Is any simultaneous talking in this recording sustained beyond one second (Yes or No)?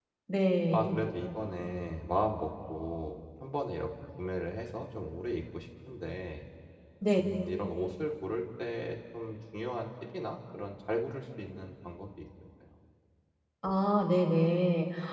No